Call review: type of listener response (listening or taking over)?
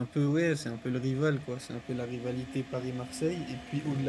listening